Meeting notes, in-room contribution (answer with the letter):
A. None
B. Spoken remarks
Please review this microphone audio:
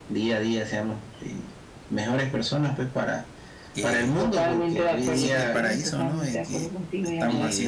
B